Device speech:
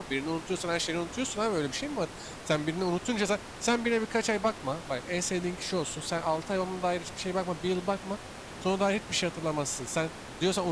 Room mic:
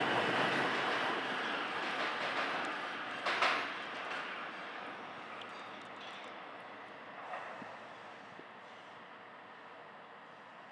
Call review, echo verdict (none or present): none